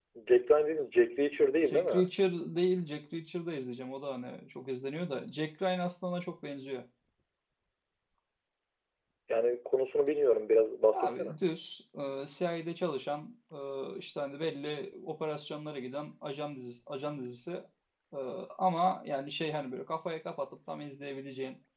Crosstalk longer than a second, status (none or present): none